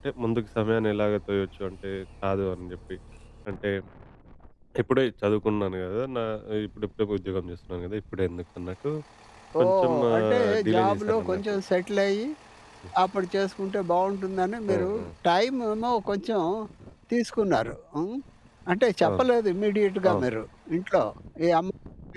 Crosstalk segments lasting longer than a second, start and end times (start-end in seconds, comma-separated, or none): 9.6-11.4